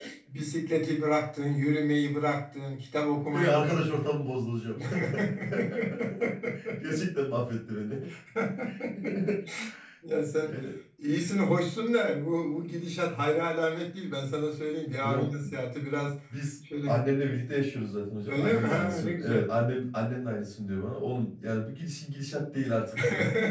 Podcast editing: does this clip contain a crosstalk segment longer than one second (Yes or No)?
Yes